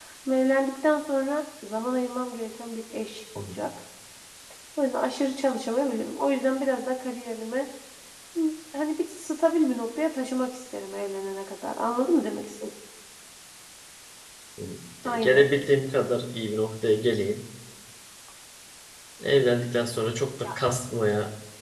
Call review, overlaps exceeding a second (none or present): none